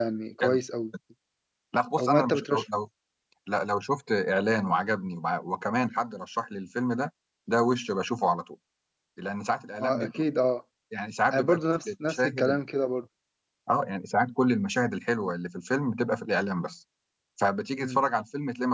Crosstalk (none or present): present